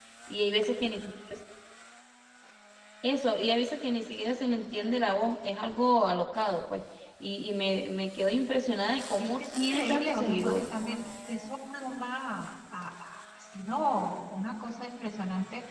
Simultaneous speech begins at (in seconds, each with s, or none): 9.2 s